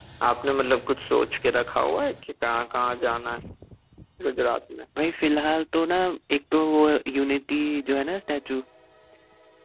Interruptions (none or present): none